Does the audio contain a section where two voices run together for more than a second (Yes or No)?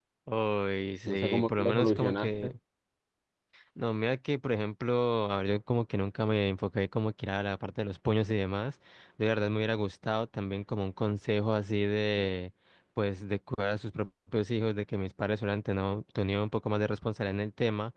Yes